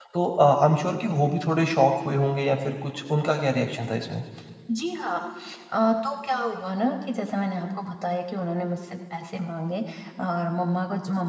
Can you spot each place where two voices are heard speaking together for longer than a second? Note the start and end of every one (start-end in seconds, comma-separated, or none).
none